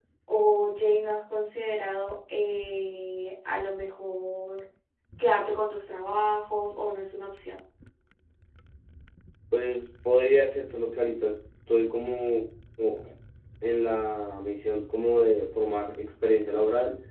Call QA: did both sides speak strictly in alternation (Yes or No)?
Yes